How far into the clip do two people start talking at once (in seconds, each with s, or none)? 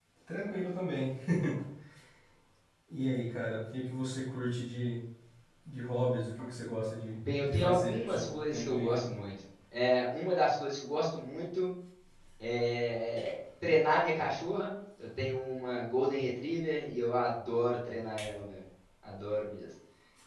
7.2 s